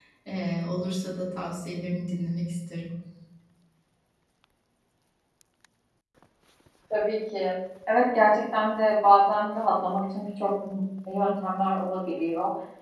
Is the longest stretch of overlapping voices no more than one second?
Yes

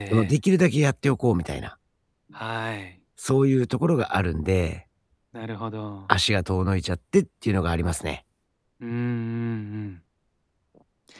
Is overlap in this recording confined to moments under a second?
Yes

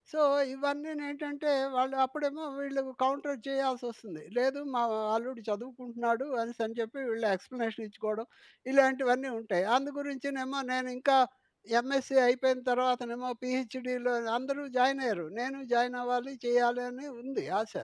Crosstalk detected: No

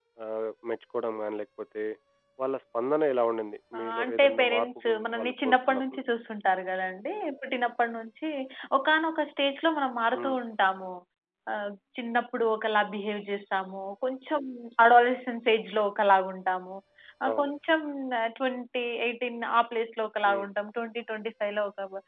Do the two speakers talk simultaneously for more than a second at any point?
Yes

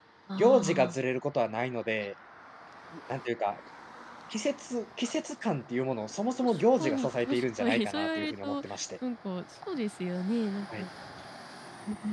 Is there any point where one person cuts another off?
Yes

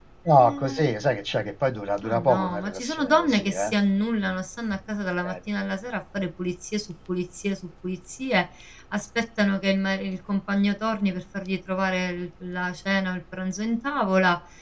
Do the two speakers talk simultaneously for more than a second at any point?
Yes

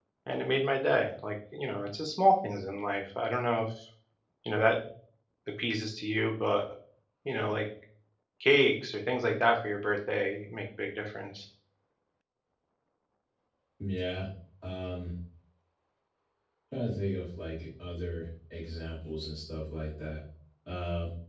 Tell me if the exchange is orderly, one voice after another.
Yes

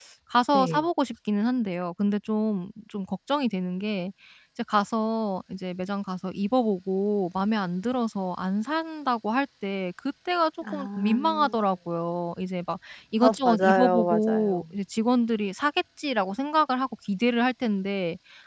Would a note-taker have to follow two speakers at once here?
Yes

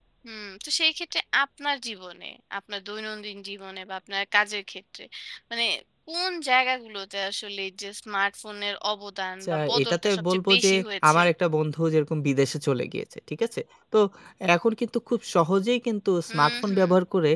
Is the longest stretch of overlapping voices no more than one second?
No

